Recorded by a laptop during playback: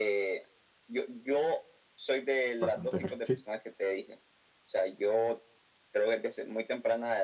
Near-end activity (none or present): present